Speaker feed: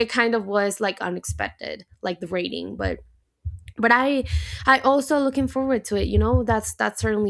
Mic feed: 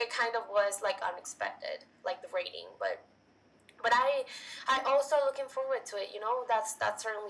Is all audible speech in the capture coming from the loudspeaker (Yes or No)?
Yes